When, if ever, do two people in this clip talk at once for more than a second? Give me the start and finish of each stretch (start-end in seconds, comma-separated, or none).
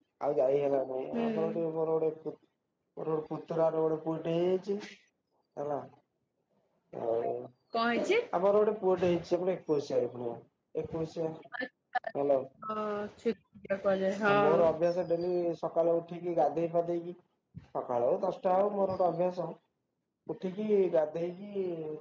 none